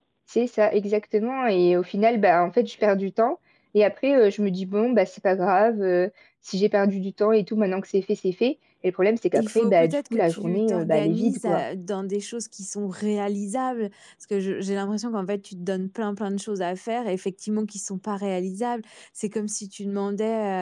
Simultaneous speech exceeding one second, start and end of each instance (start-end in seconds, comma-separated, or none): 9.4-11.6